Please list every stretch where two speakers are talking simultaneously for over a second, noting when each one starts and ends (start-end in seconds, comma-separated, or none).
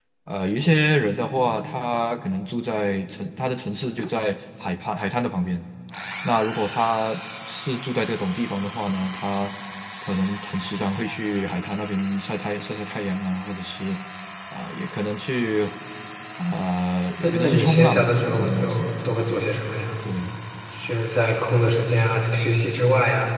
17.2-18.9